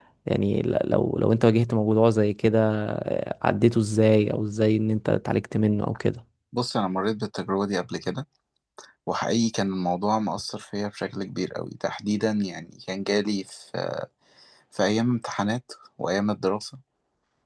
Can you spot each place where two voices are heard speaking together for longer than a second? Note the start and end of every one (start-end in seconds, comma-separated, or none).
none